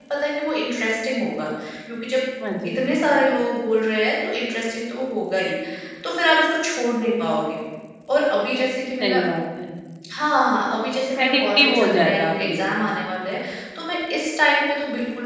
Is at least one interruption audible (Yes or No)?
Yes